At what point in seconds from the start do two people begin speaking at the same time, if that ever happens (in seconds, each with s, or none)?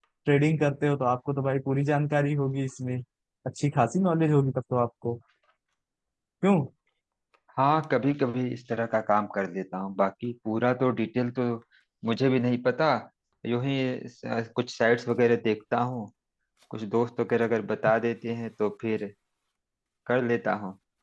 none